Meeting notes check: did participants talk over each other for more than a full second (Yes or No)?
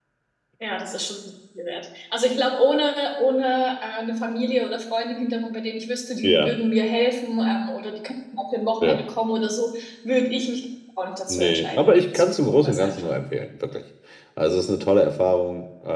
Yes